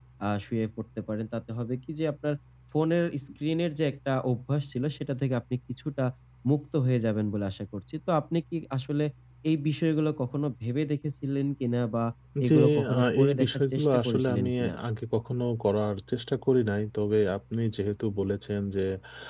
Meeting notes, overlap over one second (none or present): present